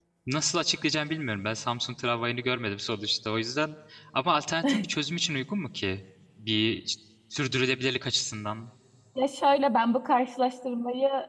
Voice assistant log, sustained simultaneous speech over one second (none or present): none